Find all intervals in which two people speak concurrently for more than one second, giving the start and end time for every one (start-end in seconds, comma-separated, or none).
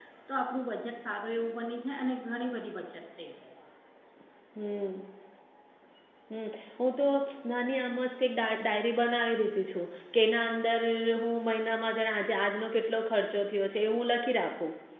none